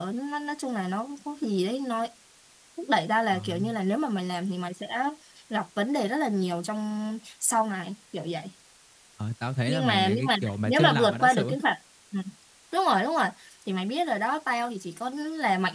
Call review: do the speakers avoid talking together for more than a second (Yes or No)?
No